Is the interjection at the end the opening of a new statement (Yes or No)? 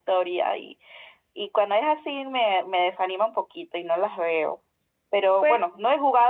No